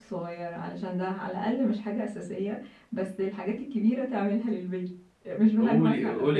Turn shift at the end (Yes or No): Yes